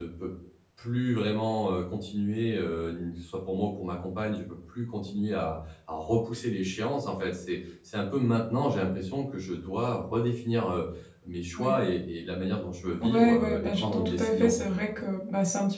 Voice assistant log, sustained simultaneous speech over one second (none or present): present